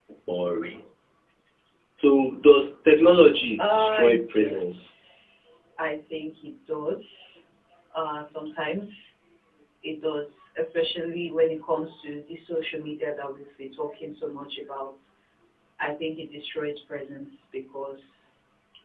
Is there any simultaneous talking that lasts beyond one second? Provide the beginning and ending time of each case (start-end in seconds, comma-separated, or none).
3.6-4.9